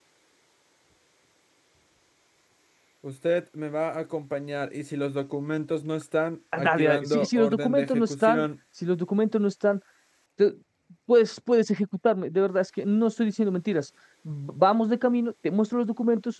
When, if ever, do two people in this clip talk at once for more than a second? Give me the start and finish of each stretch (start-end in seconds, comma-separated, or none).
6.6-8.4